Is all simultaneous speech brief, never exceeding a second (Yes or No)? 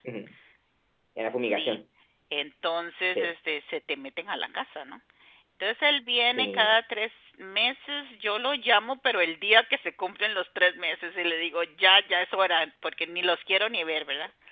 Yes